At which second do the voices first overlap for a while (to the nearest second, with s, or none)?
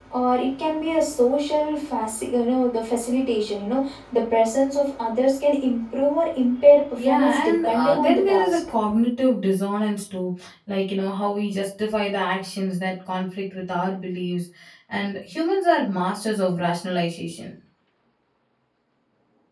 7 s